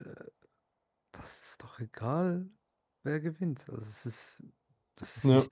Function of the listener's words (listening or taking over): listening